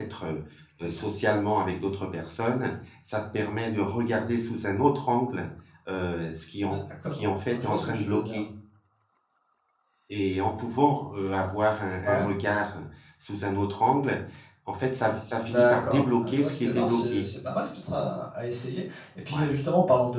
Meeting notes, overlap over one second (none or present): present